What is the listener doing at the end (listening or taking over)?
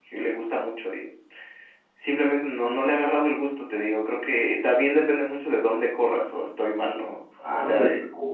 taking over